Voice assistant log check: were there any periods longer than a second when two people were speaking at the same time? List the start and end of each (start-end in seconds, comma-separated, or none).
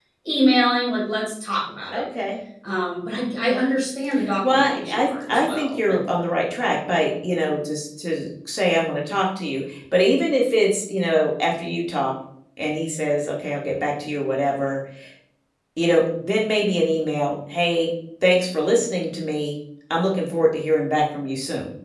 4.5-6.0